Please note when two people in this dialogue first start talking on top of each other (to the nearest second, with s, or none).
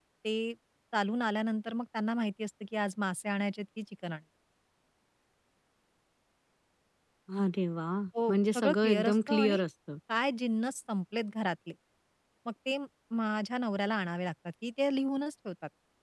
8 s